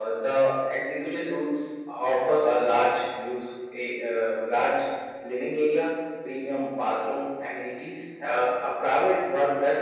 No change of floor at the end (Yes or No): Yes